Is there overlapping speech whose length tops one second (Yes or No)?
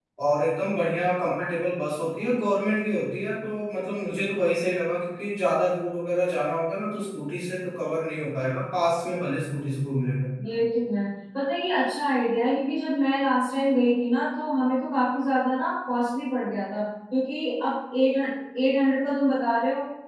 No